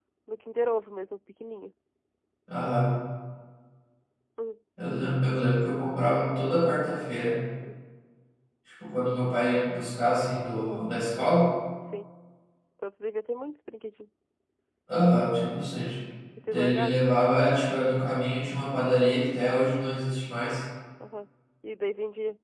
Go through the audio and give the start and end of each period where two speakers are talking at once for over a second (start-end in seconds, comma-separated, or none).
none